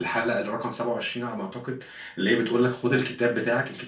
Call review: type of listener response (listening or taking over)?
listening